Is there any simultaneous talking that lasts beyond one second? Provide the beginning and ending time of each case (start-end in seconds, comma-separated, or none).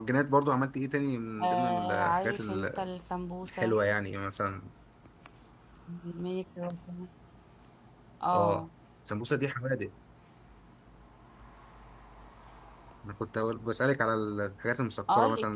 1.4-2.9